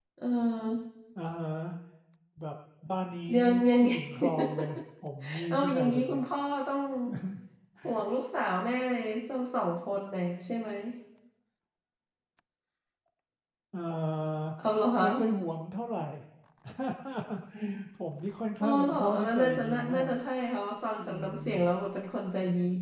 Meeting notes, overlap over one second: present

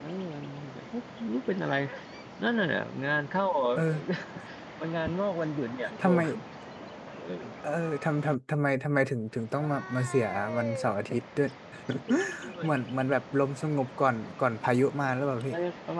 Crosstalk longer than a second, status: none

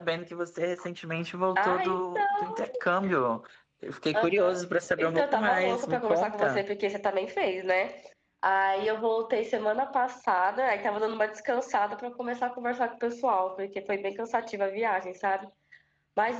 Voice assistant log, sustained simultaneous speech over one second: present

